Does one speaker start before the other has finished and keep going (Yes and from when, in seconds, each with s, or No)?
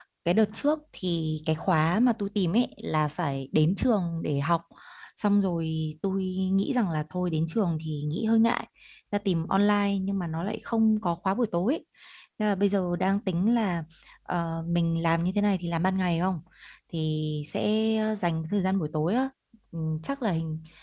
No